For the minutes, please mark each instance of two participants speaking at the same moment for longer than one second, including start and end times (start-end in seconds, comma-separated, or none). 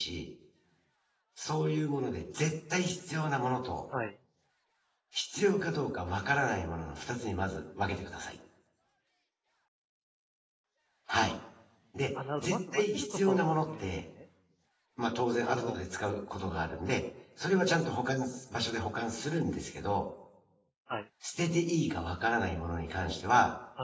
12.4-13.9